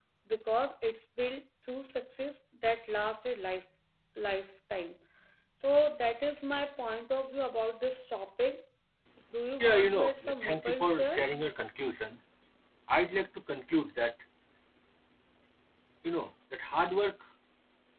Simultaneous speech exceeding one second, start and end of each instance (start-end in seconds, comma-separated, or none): 9.6-11.3